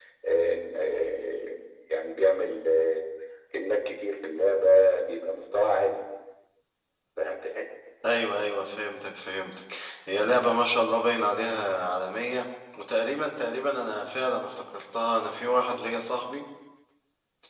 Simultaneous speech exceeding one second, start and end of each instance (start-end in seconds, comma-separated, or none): none